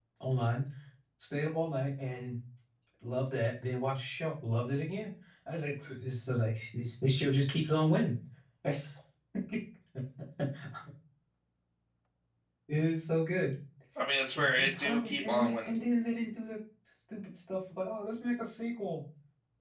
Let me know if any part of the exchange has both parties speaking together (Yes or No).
Yes